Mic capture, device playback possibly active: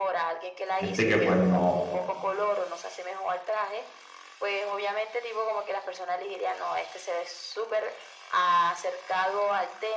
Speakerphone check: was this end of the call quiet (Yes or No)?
No